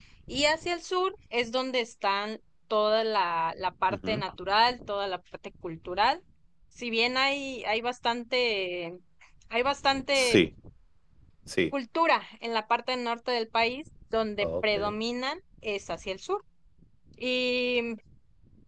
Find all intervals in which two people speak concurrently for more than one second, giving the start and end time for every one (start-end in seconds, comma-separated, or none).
none